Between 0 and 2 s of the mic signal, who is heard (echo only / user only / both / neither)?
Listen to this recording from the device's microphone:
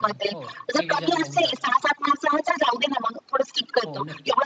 both